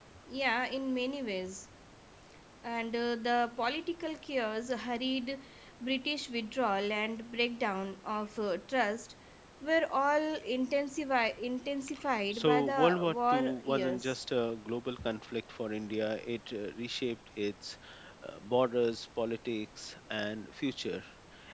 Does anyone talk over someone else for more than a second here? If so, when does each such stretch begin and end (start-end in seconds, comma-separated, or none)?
12.3-14.2